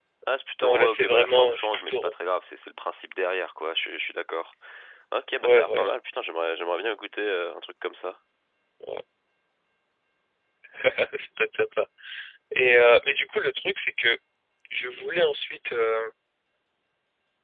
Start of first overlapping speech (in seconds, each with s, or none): 0.6 s